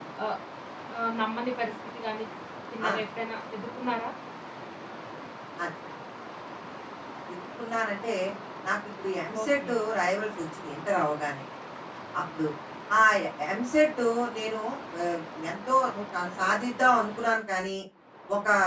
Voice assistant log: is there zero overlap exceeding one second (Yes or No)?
Yes